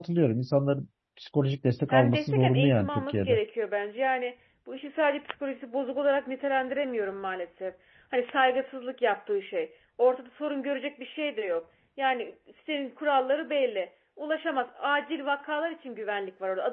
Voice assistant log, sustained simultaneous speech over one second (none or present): present